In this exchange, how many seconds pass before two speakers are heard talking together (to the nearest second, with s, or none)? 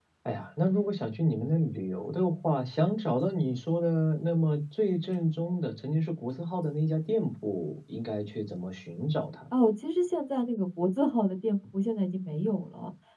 none